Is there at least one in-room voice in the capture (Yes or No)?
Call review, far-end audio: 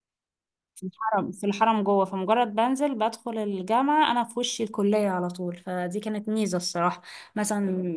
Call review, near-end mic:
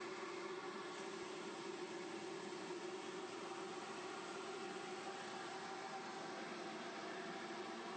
No